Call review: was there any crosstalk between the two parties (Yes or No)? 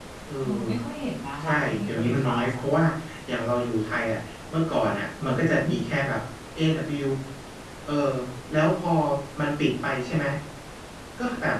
Yes